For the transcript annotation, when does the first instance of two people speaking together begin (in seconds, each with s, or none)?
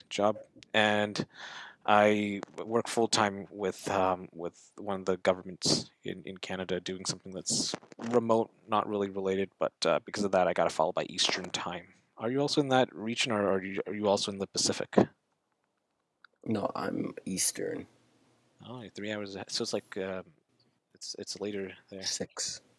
none